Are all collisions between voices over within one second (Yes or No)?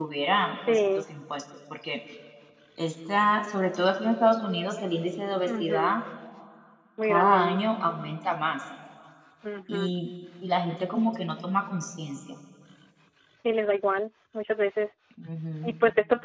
Yes